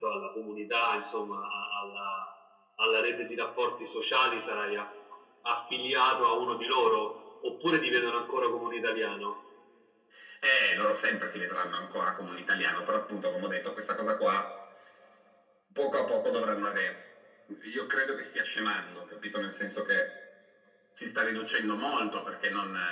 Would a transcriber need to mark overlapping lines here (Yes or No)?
No